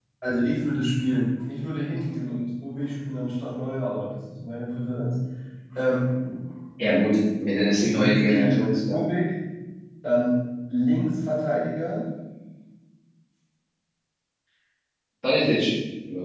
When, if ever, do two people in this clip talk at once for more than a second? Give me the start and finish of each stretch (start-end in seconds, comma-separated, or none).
7.8-9.0